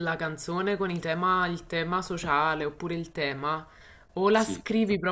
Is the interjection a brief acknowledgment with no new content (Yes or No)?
Yes